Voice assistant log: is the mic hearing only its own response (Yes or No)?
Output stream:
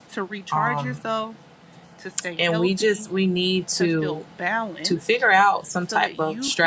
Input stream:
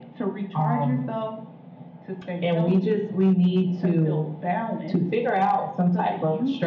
Yes